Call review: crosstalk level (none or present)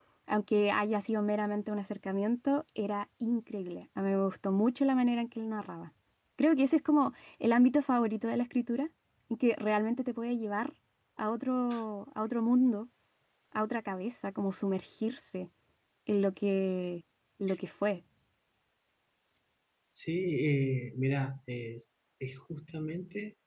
none